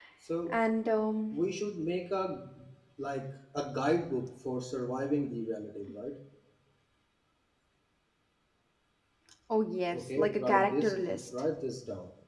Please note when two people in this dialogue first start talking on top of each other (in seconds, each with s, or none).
9.9 s